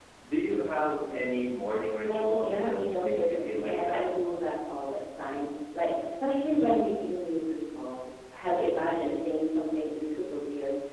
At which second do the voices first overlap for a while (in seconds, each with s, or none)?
2.1 s